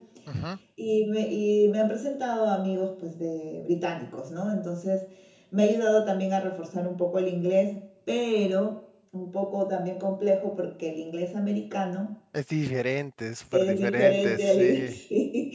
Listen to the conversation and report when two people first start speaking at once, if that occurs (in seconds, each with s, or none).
13.5 s